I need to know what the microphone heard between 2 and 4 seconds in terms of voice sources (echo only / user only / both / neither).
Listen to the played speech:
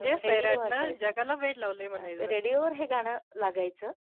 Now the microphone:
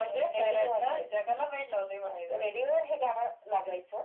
echo only